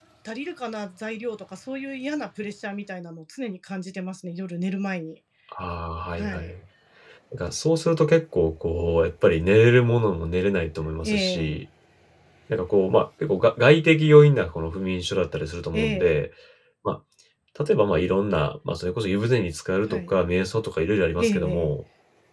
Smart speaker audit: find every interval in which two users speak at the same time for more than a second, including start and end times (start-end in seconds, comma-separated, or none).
none